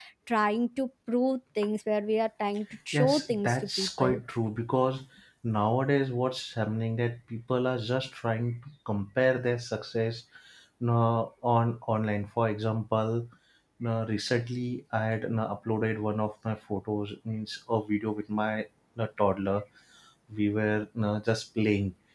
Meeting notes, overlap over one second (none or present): present